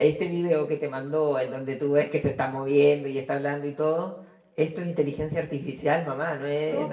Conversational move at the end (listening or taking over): taking over